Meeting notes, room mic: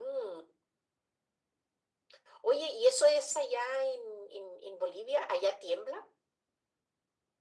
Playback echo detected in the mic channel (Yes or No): Yes